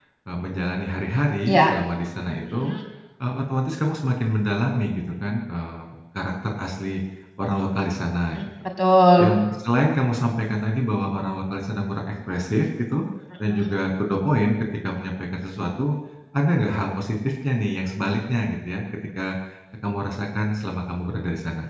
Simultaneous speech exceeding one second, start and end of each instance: none

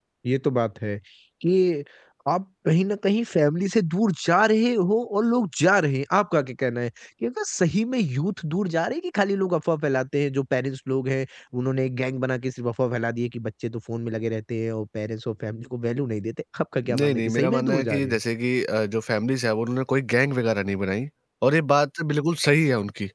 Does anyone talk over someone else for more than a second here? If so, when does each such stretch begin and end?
16.9-18.2

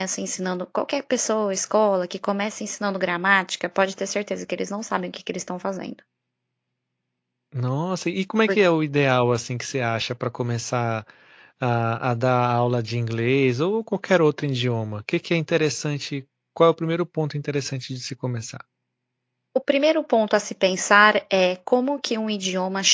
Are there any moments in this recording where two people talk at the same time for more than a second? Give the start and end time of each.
none

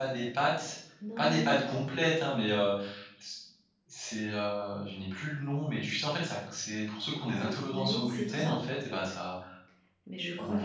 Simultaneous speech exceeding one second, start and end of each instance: 7.3-8.5

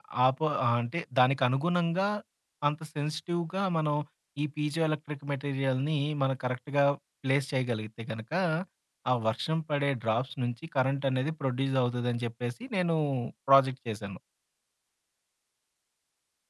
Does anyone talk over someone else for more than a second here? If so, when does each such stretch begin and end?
none

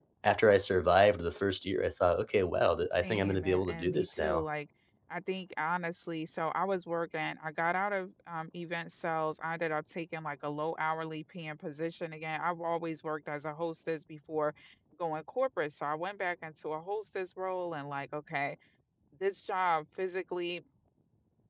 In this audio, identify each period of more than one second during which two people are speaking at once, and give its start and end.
3.0-4.5

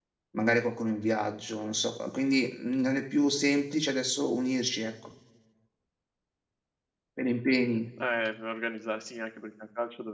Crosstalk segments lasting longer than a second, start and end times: none

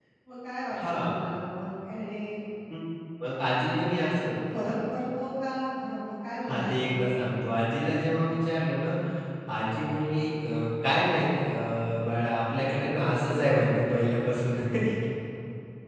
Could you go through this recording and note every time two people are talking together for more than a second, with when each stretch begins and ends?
none

